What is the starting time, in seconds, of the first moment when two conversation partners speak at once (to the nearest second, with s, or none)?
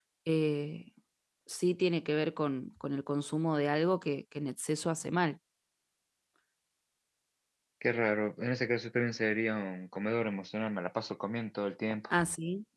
none